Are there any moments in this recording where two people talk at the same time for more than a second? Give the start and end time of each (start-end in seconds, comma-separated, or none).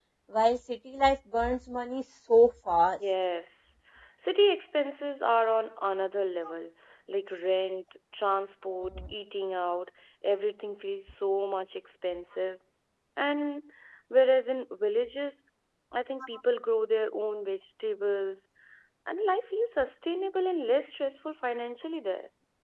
none